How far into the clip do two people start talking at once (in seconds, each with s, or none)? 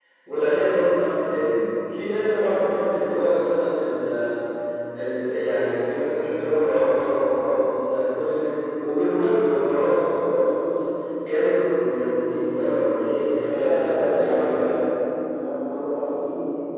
13.5 s